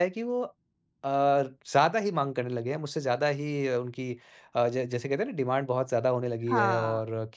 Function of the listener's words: listening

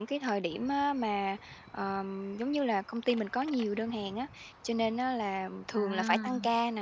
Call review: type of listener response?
listening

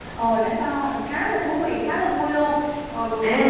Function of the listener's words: taking over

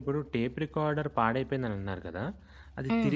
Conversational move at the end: listening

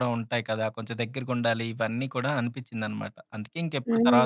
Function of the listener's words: taking over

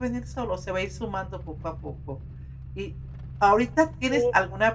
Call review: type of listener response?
listening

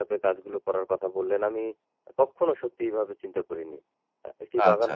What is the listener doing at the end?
listening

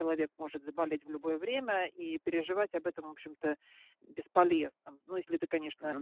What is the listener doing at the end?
listening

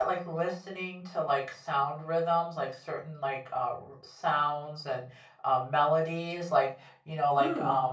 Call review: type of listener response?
listening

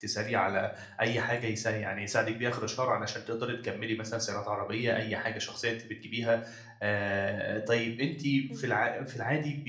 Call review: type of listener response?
listening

